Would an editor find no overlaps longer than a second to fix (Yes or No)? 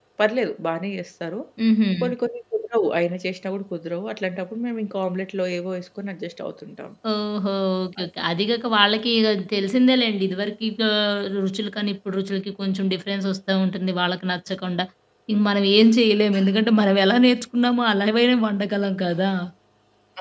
Yes